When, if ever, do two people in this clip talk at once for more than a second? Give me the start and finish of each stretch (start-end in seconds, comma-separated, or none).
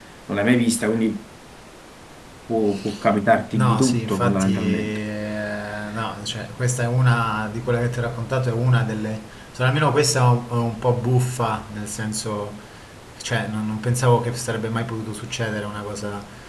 3.5-5.0